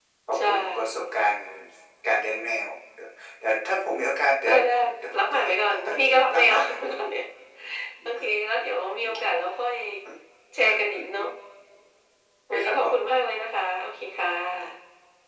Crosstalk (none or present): present